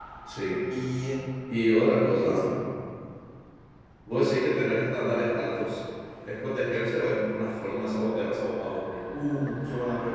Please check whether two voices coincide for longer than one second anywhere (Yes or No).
No